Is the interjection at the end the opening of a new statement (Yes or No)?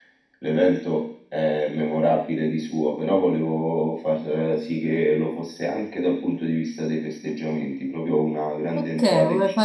Yes